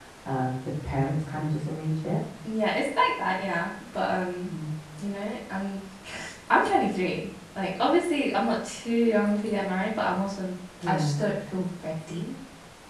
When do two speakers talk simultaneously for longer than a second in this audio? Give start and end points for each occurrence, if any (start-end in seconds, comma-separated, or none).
none